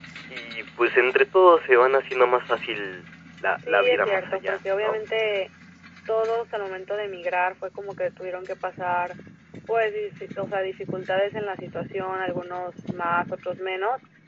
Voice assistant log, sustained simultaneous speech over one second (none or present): present